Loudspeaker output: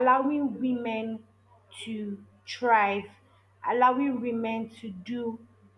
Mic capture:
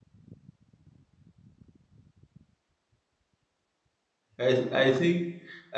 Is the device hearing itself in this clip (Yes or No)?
No